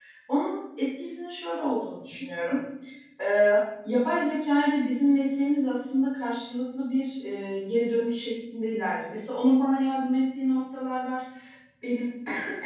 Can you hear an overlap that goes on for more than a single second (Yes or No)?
No